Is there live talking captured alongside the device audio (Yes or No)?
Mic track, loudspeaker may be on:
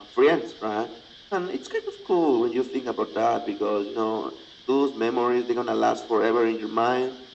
No